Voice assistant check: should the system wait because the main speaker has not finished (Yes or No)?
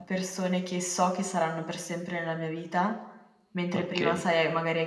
Yes